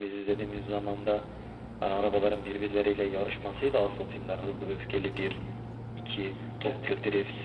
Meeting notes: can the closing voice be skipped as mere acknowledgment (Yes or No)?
No